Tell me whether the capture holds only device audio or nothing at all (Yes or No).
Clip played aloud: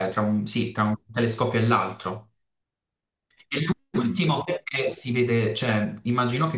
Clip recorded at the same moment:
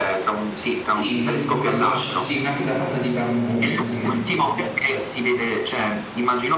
No